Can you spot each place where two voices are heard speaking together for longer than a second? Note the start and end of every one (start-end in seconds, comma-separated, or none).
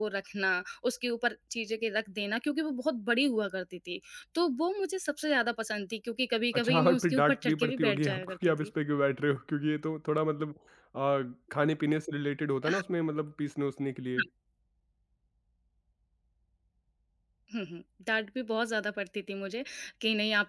6.5-8.7